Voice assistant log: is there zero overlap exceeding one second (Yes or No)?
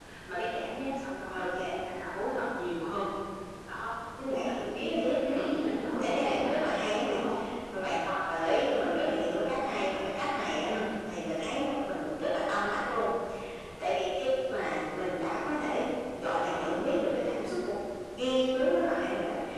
No